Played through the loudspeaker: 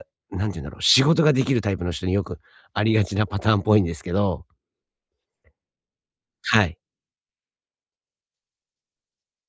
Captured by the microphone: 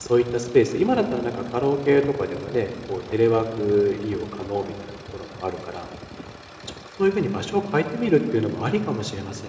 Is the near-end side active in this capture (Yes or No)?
Yes